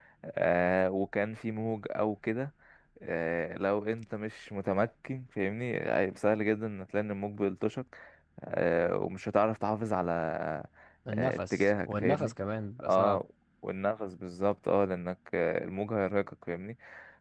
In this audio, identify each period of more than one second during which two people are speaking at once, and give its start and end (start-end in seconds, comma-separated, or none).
11.1-12.3